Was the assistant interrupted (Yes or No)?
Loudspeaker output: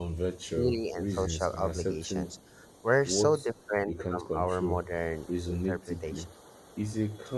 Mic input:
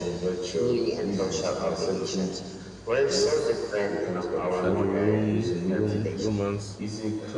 Yes